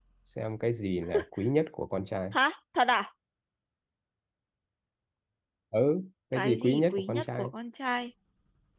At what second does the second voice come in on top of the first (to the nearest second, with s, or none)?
6 s